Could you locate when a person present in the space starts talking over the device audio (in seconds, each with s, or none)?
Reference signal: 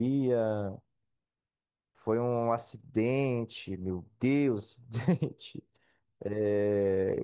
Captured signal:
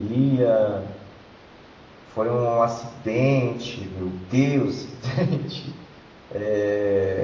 none